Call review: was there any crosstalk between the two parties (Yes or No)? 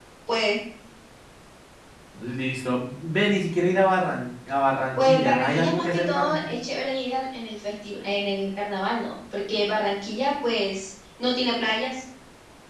Yes